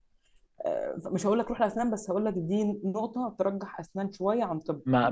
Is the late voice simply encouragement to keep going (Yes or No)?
No